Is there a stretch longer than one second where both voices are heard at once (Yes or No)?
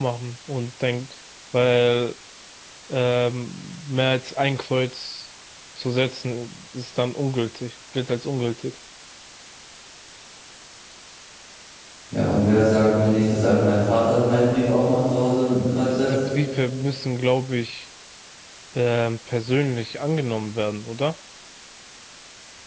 No